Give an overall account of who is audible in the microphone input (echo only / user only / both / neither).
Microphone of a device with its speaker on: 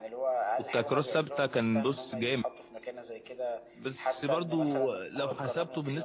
both